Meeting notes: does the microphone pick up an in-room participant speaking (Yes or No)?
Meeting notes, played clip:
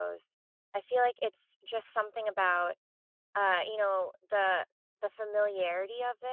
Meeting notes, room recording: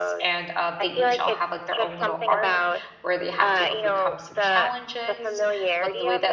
Yes